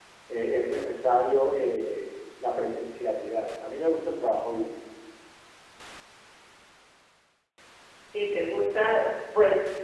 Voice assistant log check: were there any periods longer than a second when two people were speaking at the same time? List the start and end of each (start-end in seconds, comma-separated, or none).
none